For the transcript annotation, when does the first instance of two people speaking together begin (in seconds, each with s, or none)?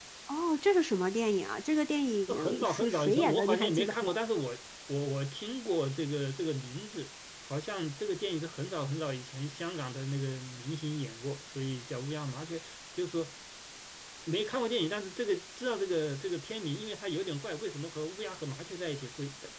2.3 s